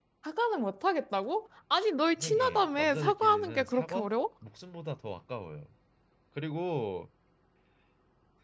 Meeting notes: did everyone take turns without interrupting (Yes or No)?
No